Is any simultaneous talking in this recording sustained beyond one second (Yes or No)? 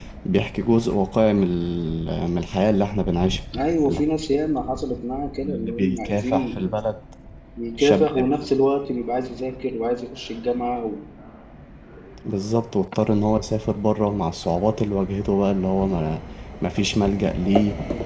Yes